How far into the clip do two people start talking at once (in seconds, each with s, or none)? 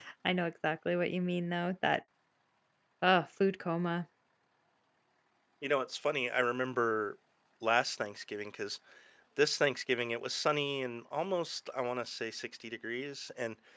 none